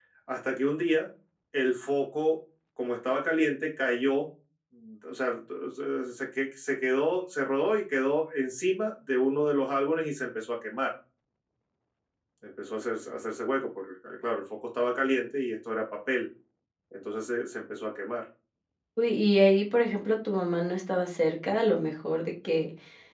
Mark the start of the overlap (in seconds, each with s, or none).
none